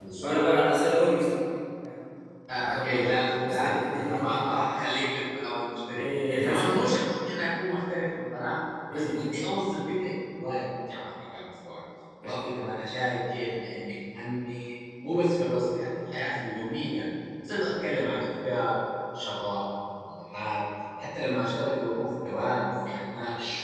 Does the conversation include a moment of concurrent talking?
Yes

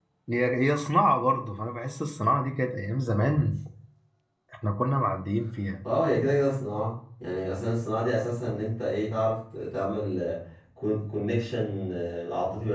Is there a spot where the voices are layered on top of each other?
No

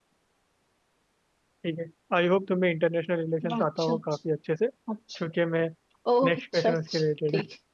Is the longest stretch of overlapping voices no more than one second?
No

